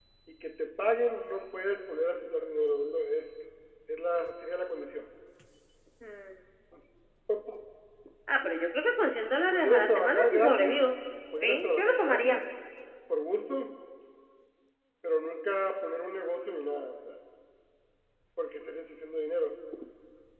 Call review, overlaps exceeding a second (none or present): present